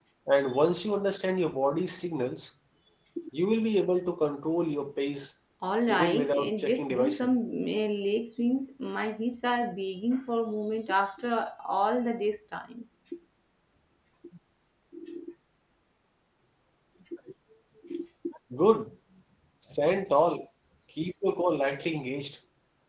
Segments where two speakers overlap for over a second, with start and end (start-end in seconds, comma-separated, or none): 5.9-7.3